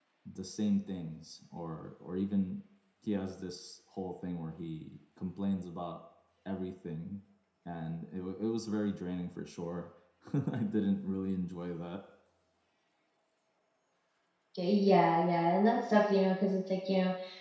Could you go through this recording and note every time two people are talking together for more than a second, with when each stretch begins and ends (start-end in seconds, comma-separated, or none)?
none